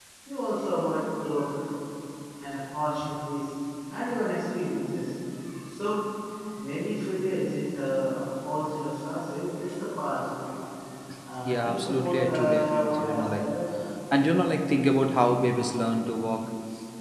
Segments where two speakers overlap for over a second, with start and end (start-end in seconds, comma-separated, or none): 11.4-13.5